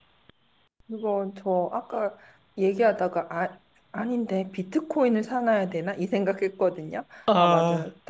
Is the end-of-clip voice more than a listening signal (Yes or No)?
No